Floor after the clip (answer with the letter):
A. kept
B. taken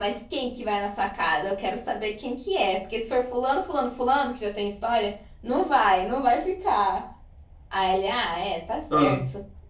A